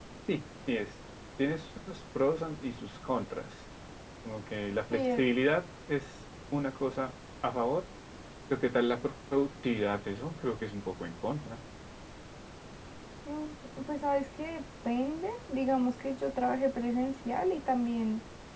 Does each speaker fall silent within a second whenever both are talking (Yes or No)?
Yes